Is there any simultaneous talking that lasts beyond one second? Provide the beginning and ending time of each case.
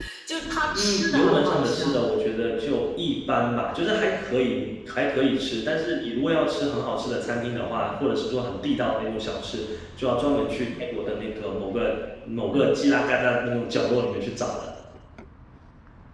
0.8-2.0

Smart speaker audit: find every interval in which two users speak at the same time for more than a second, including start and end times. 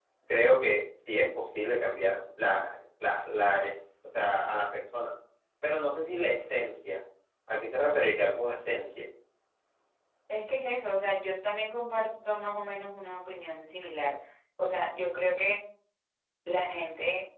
none

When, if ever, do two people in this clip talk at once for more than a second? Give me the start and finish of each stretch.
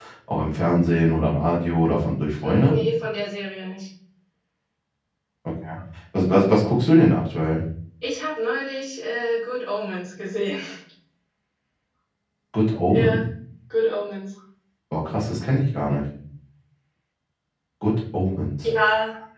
none

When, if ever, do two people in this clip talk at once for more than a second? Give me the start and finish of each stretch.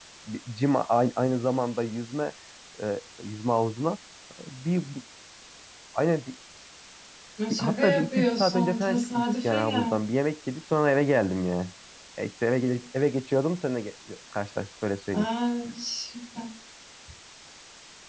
7.5-9.9

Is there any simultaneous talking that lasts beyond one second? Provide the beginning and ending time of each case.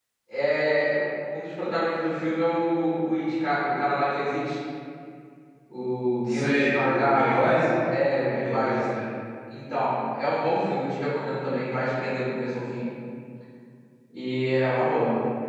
6.3-7.6

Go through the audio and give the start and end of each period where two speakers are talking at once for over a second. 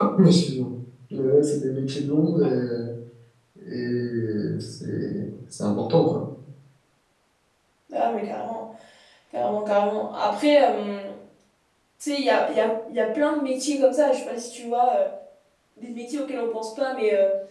none

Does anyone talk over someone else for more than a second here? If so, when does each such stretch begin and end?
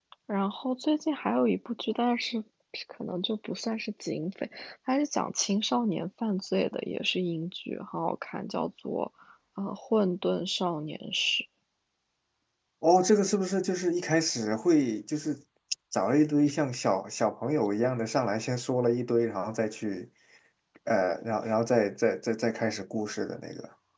none

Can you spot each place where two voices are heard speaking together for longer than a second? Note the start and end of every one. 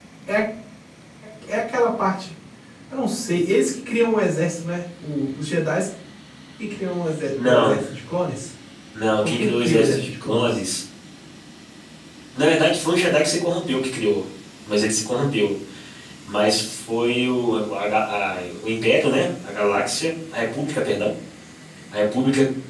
9.2-10.6

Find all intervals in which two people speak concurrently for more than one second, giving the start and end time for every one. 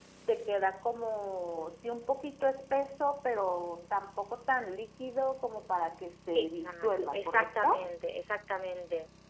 6.4-7.9

